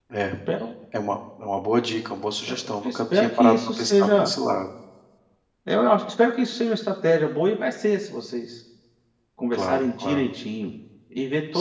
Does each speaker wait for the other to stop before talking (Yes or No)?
No